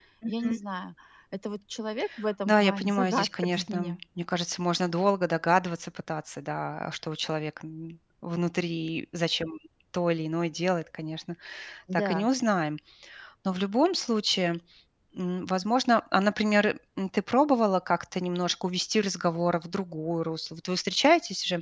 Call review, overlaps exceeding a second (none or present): present